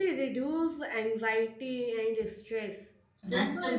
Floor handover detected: No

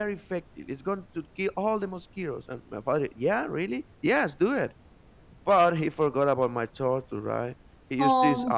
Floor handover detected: No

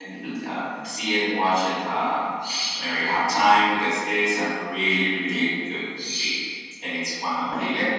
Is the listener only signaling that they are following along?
Yes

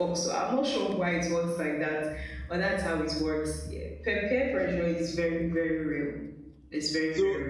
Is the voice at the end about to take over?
Yes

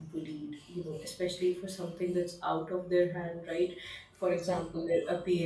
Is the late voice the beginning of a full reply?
No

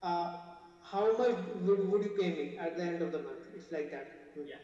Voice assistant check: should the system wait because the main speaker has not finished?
No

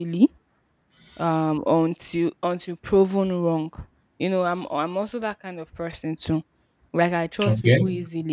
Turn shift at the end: No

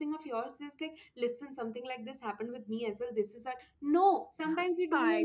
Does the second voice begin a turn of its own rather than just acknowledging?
No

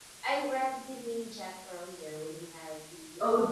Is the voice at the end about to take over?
Yes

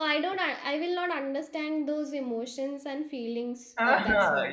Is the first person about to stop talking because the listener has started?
Yes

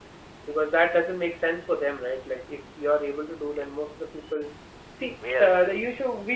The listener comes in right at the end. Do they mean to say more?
No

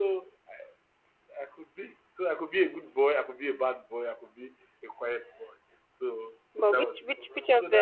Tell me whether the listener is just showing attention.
No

